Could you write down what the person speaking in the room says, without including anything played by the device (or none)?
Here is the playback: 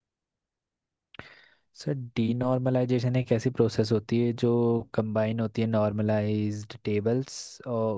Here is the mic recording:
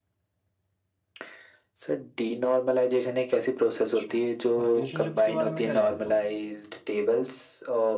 अच्छा, रिलेशनशिप्स के बारे में क्या जानते हो